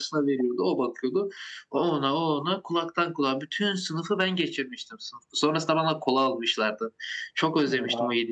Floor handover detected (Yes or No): No